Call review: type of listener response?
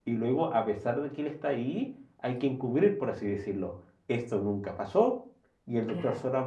listening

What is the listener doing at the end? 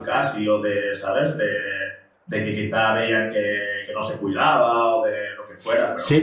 taking over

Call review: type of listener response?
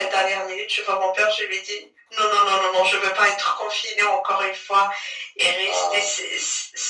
listening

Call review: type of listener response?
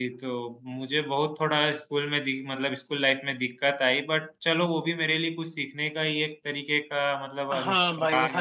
taking over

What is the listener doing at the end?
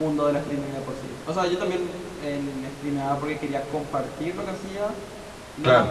listening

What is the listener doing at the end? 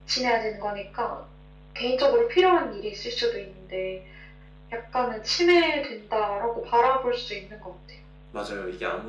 taking over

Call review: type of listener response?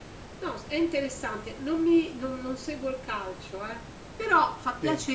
listening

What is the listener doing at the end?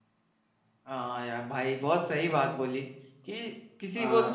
listening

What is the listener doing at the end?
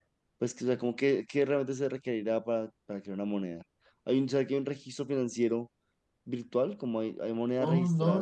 taking over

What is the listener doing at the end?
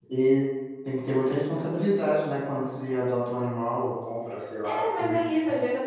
taking over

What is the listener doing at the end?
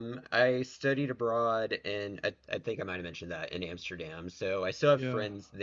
listening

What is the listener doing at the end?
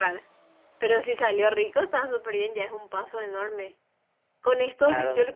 listening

